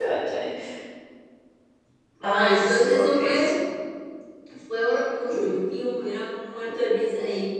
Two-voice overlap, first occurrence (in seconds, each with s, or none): 2.2 s